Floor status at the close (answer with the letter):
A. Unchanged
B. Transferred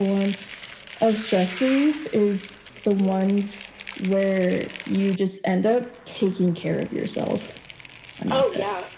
B